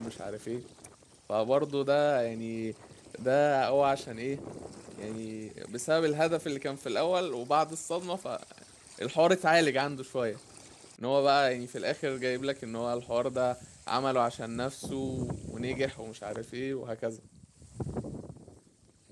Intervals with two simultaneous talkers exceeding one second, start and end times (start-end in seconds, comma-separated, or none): none